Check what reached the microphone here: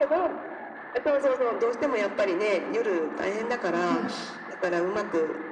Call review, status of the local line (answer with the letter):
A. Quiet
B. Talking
B